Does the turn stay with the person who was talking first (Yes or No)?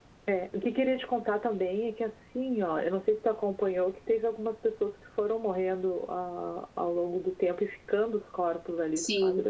No